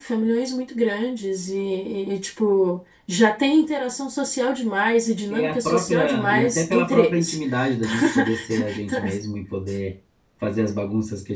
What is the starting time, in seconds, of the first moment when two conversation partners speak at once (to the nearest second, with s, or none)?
5 s